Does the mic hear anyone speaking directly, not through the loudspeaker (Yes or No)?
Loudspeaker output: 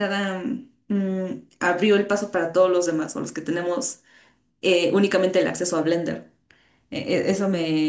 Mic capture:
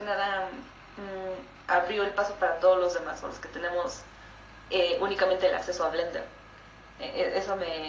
No